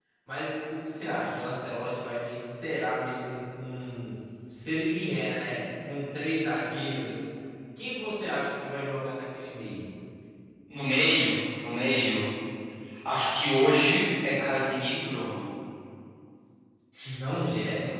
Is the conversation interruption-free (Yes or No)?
Yes